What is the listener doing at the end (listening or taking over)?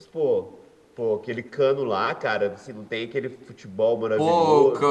taking over